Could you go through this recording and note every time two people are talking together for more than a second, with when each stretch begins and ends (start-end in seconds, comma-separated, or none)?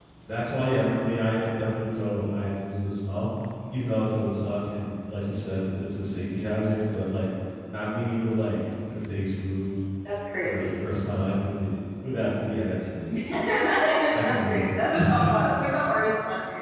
14.1-15.3